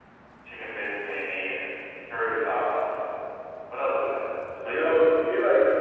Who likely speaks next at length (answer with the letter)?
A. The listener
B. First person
A